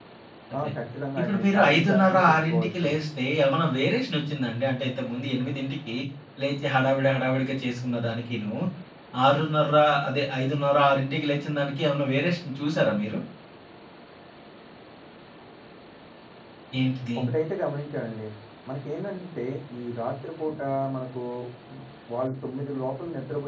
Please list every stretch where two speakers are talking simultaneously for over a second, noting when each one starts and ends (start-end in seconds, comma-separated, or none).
1.2-2.9